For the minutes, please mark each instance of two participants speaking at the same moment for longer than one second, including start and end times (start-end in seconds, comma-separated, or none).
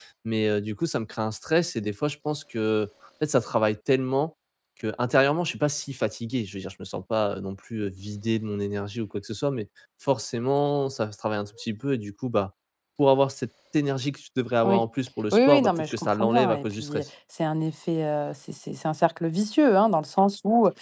15.3-17.1